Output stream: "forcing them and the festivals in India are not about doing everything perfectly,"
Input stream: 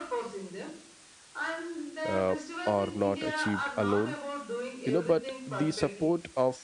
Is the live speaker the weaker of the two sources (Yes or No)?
No